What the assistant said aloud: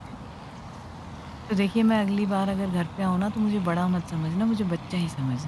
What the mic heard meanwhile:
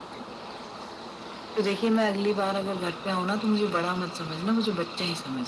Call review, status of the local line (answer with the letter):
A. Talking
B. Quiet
B